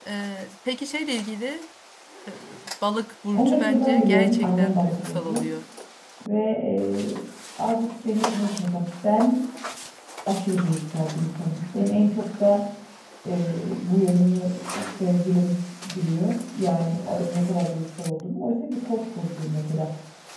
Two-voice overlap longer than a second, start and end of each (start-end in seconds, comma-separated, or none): 3.3-5.4